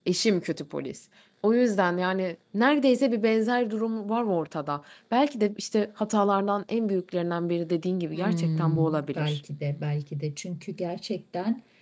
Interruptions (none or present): present